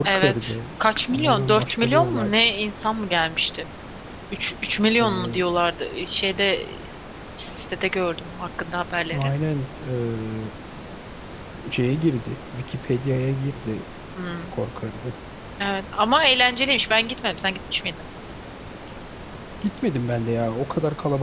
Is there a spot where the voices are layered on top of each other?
Yes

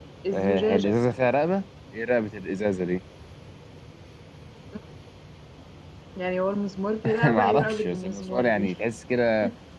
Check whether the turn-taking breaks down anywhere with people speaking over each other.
Yes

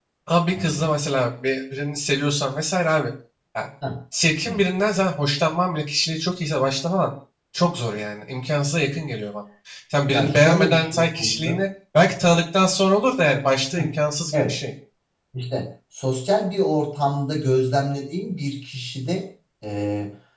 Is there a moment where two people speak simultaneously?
Yes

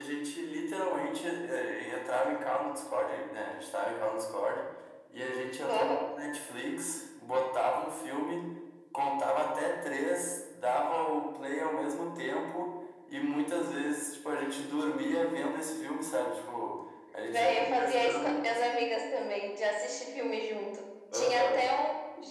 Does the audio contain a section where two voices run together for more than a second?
Yes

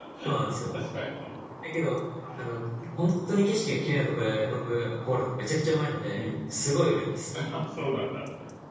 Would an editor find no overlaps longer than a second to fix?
Yes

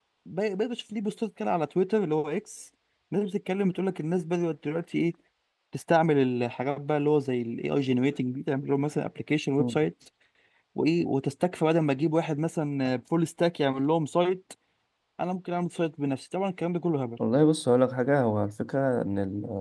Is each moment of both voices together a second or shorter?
Yes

